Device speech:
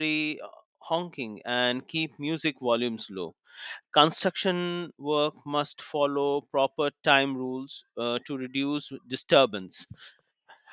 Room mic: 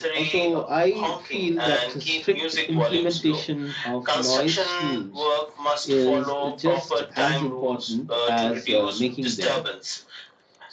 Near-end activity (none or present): present